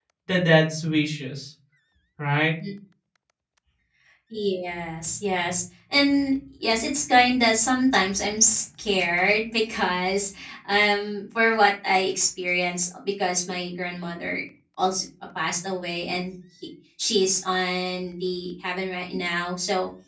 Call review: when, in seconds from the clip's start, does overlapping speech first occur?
none

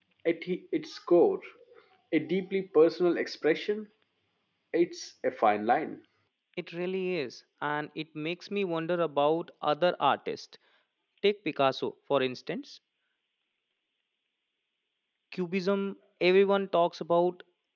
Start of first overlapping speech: none

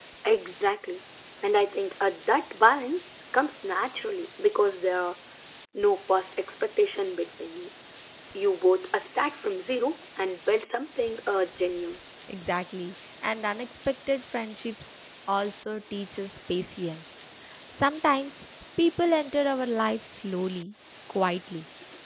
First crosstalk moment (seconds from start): none

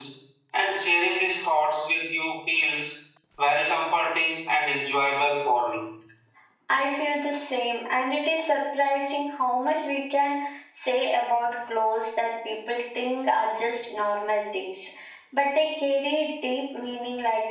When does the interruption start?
none

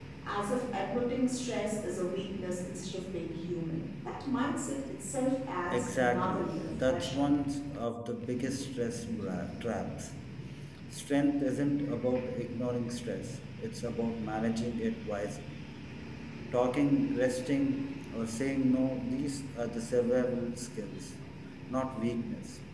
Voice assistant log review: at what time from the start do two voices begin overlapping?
5.7 s

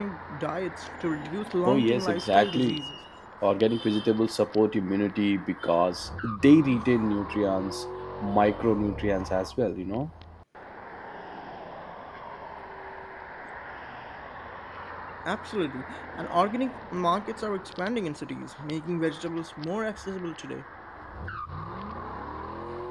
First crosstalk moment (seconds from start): 1.6 s

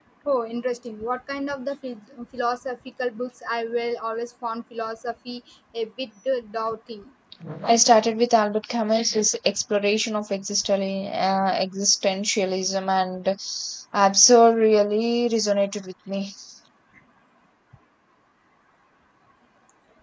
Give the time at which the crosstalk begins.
none

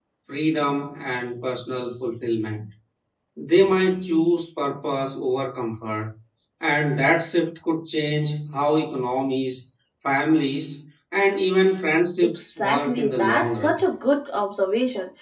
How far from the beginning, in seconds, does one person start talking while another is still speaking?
12.2 s

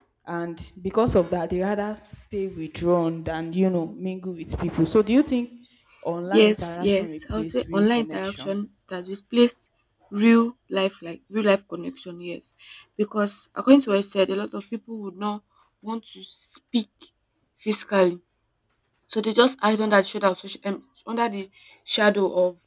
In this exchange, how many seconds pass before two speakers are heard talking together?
6.3 s

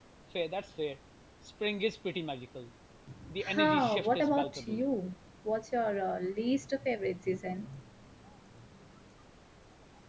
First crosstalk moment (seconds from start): 3.5 s

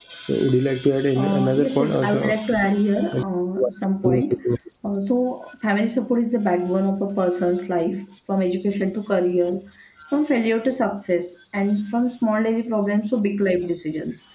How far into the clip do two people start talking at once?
1.1 s

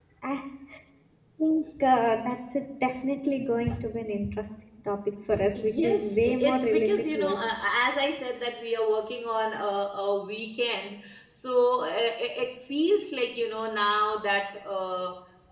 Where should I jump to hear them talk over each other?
5.5 s

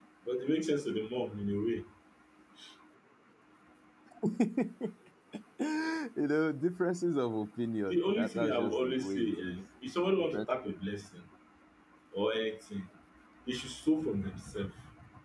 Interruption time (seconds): 7.9 s

